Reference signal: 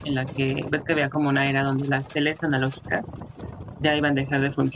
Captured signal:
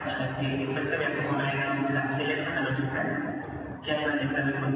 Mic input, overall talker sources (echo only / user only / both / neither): echo only